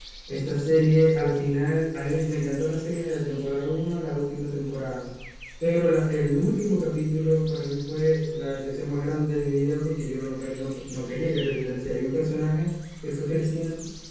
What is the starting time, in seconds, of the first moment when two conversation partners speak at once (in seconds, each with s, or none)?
none